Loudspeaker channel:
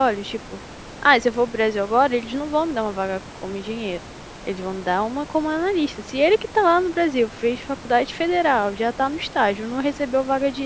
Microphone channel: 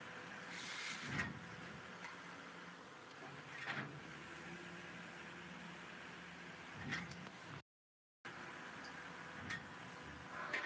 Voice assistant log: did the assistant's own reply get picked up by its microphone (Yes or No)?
No